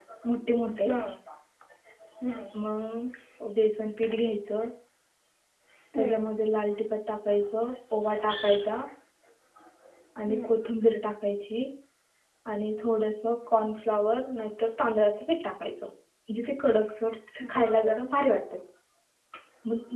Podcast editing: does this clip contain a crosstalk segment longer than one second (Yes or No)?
No